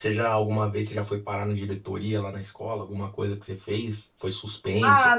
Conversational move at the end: taking over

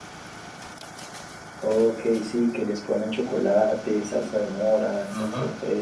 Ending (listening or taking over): taking over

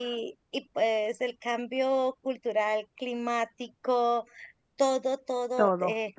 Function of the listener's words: listening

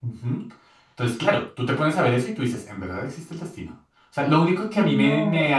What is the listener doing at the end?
listening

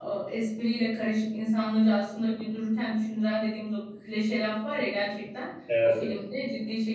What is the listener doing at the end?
listening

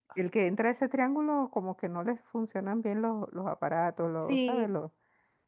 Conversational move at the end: listening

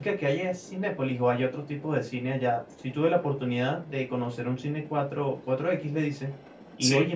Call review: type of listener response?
listening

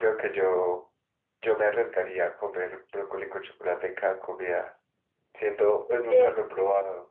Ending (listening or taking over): listening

